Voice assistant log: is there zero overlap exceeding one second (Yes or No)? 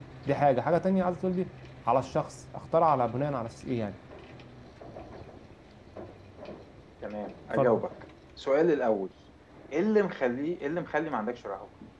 Yes